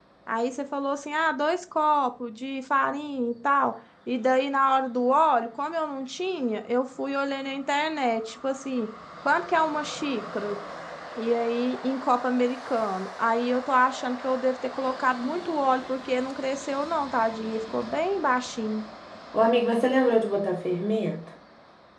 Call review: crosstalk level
none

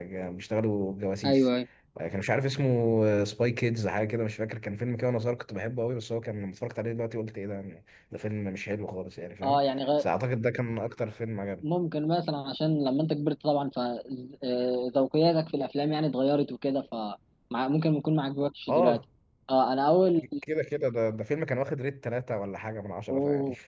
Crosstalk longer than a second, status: none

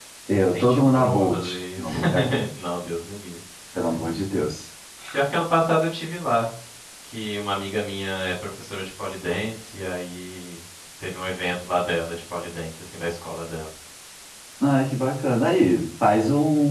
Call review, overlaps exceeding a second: present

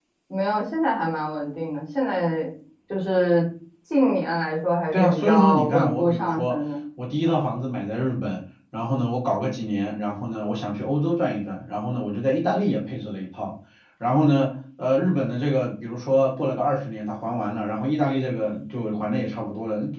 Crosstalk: present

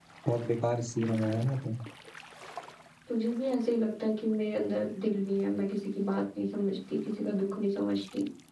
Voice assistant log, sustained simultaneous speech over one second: none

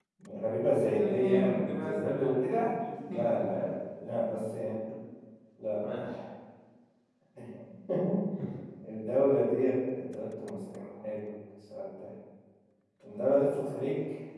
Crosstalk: present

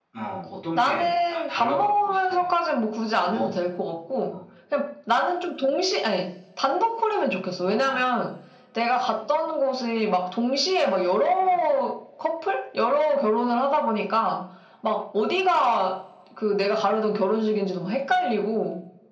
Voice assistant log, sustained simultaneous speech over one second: present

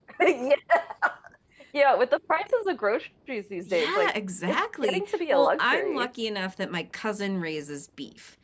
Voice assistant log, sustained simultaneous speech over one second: present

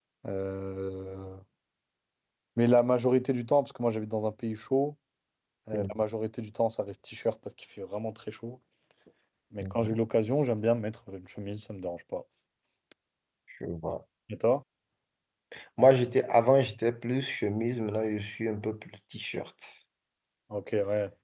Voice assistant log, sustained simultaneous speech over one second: none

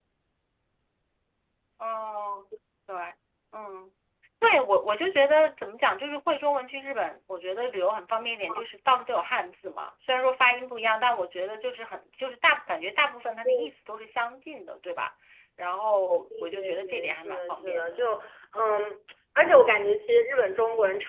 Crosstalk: present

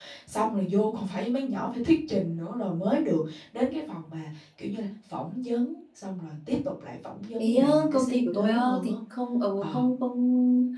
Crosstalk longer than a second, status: present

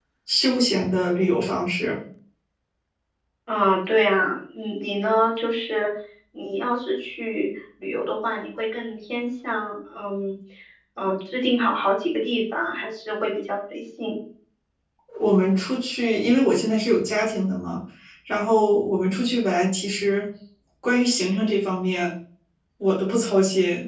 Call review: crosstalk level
none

